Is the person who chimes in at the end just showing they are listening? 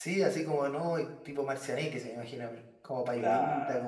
No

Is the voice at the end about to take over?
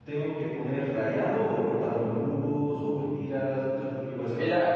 Yes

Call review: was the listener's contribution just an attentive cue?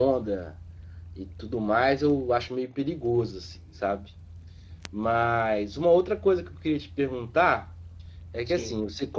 Yes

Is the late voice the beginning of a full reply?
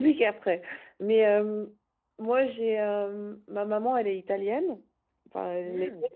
No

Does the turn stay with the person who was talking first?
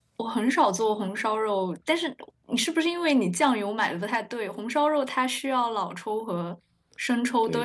No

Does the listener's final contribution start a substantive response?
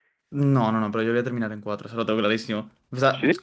No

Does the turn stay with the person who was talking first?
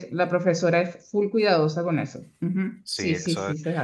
No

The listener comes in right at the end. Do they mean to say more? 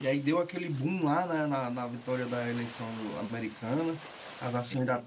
No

